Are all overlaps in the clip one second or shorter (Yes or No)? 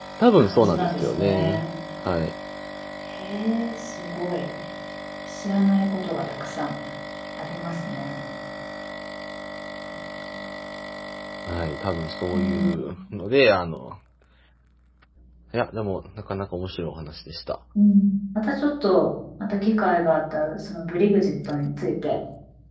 No